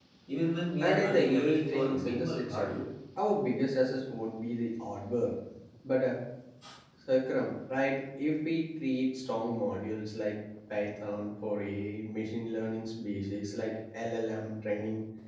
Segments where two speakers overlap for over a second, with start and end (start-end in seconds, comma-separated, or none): 0.8-2.9